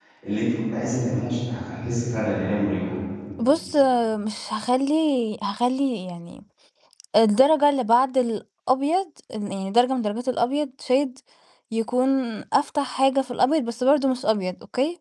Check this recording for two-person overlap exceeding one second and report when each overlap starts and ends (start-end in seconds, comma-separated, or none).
none